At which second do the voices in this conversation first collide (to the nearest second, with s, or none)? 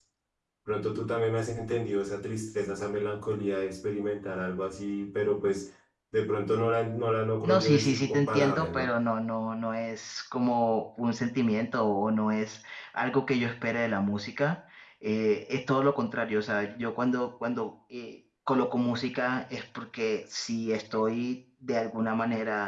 7 s